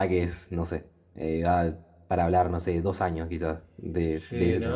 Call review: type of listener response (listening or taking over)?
taking over